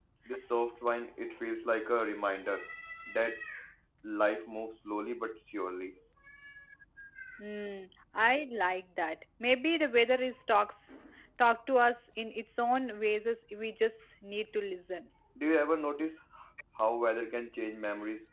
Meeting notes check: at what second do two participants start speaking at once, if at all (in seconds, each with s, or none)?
none